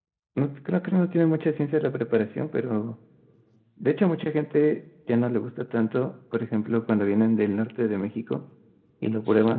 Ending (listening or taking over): listening